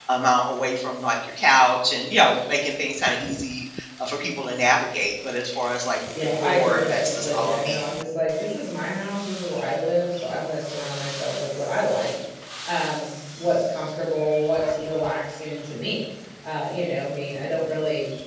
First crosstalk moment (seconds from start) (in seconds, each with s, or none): 6.2 s